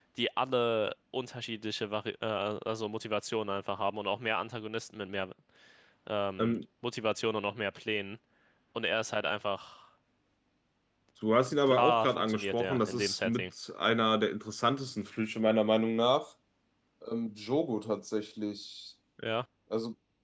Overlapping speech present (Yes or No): Yes